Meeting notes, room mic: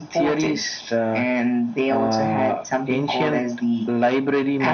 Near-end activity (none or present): none